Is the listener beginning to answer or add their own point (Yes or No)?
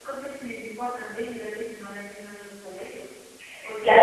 Yes